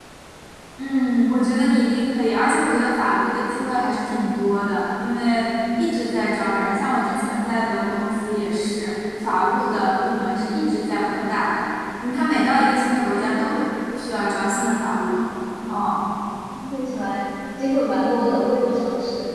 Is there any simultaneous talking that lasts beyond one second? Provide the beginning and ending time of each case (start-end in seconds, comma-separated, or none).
none